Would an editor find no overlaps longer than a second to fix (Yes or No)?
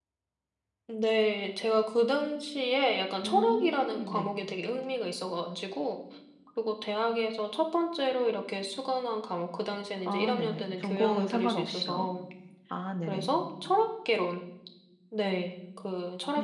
No